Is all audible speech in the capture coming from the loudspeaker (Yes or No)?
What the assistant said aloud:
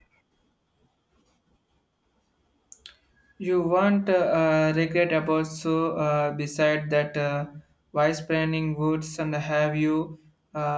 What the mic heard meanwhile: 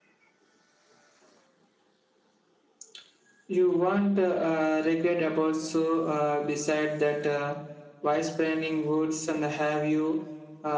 Yes